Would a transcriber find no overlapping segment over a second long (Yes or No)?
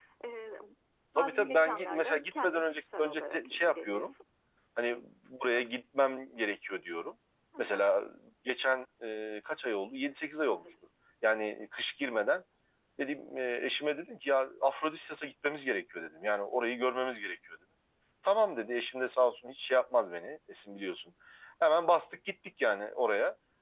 No